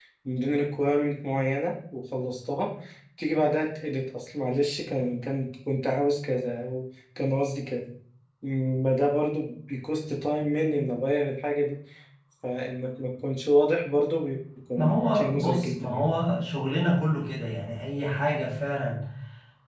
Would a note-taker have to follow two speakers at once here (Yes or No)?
Yes